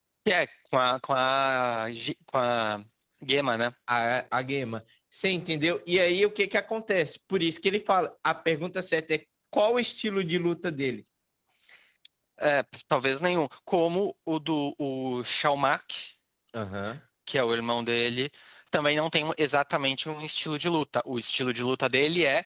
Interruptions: none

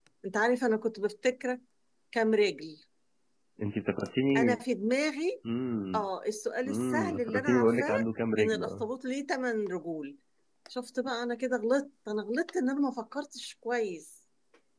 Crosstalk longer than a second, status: present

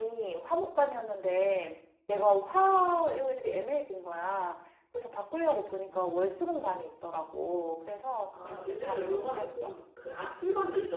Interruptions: present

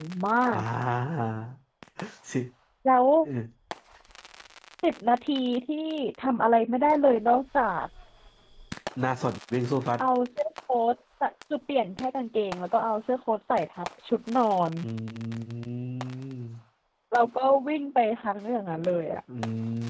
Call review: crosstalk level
none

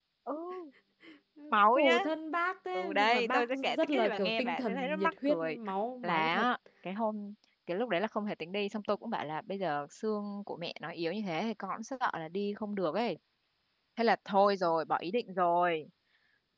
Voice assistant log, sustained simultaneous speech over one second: present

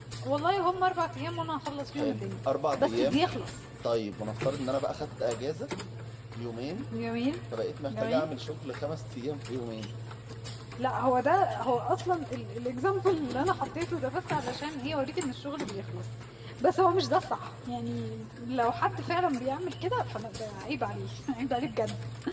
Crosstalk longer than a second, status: none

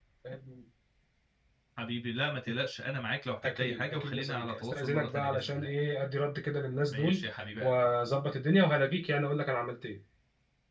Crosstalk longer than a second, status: present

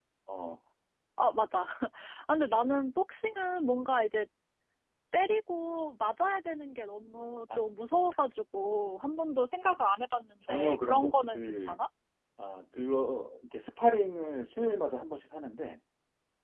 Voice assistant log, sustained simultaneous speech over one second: present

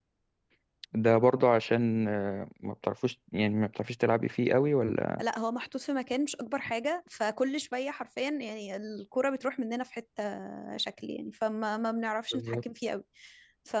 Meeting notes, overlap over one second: none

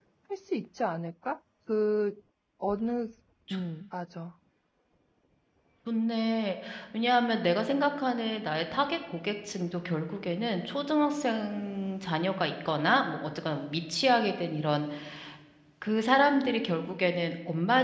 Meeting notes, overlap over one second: none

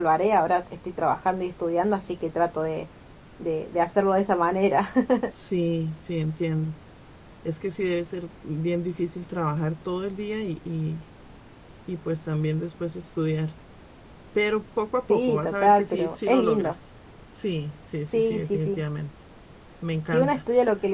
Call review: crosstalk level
present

